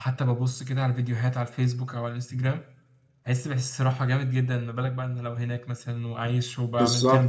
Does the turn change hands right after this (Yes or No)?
Yes